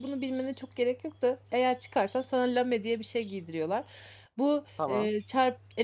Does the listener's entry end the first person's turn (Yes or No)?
No